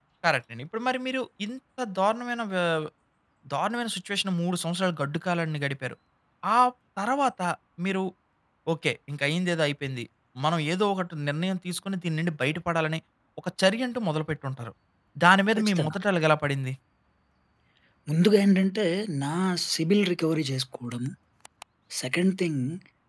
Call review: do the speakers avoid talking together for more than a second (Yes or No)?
Yes